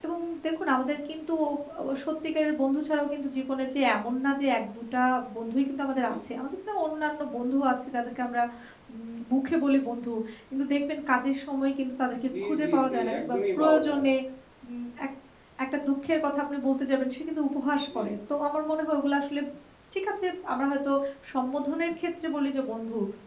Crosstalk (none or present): present